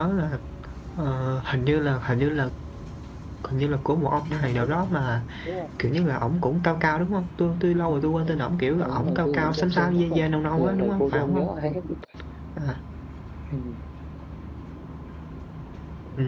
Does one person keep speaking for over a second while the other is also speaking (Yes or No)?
Yes